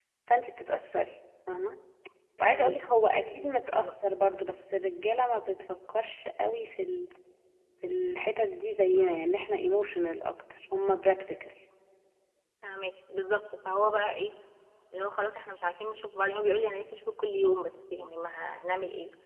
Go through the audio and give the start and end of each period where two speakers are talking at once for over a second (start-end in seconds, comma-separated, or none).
2.4-3.9